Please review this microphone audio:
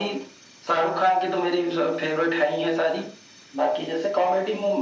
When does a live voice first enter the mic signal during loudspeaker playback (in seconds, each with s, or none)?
none